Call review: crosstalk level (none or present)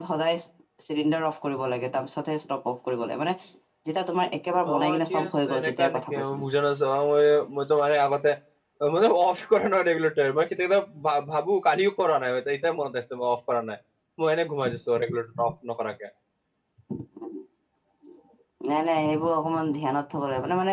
present